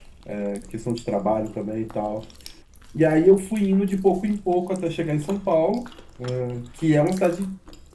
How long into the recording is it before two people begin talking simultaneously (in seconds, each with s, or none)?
none